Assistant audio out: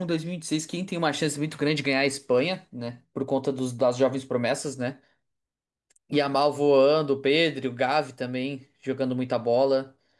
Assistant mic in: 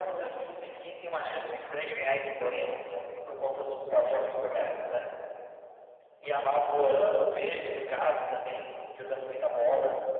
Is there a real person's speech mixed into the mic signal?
No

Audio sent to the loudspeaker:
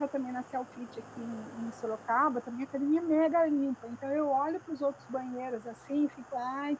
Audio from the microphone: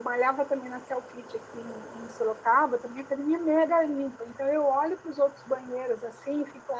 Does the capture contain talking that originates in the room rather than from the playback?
No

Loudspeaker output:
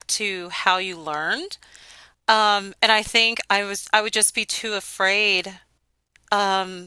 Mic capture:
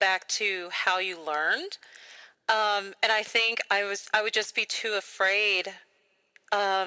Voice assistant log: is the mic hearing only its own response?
Yes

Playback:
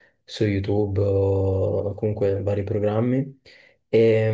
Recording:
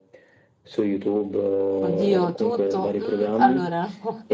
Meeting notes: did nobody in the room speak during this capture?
No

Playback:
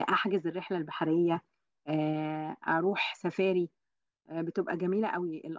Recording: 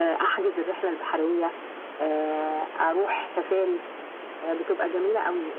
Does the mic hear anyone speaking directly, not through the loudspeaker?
No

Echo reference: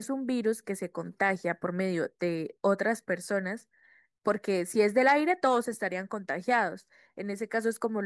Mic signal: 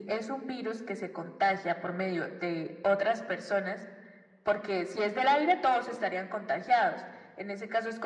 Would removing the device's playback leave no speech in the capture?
Yes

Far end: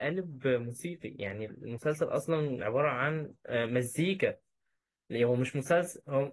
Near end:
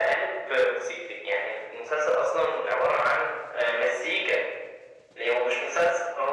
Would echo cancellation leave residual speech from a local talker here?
No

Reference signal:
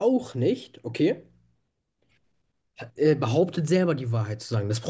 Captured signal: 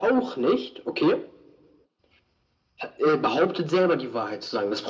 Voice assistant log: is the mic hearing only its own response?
Yes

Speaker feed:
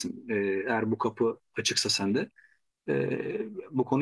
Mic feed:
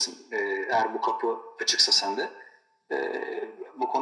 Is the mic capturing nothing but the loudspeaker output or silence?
Yes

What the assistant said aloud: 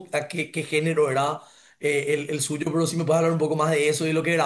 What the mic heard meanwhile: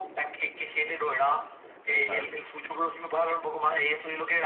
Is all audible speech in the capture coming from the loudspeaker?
No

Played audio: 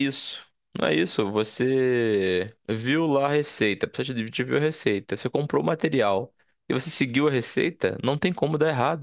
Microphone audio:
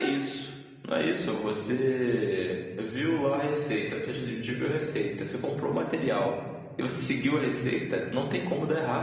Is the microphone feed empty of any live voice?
Yes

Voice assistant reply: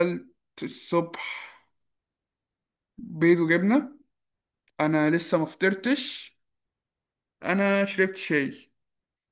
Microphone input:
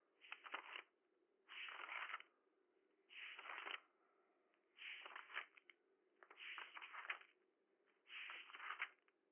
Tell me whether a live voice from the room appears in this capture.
No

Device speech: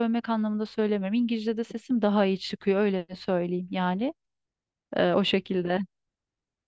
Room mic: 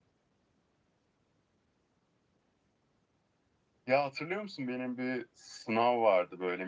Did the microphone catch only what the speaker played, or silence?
No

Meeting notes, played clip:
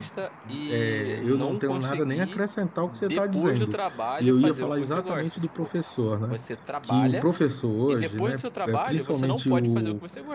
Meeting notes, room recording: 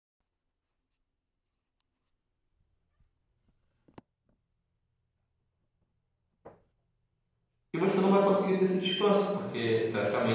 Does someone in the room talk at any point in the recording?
Yes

